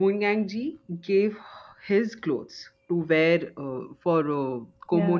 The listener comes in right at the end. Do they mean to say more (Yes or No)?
No